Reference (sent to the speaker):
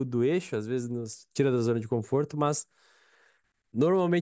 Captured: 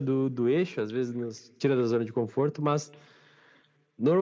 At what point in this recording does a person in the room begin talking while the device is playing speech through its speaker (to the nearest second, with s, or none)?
none